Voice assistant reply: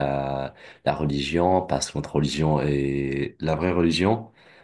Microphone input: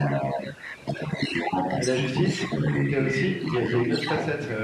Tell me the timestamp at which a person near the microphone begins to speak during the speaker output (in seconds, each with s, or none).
1.8 s